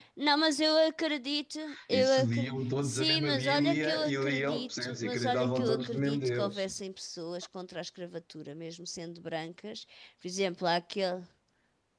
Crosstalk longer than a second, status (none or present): present